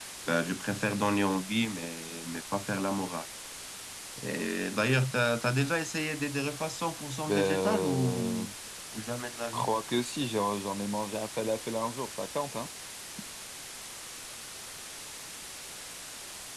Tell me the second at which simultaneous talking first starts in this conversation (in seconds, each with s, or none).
7.3 s